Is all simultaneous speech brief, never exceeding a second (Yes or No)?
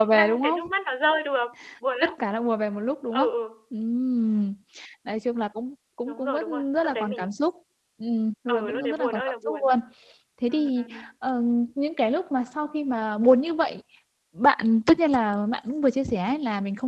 No